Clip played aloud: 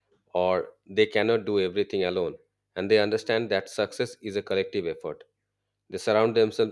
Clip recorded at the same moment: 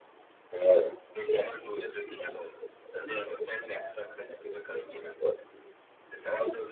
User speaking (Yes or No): No